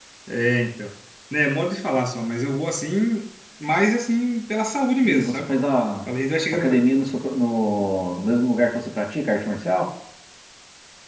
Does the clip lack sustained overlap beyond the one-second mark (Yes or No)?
Yes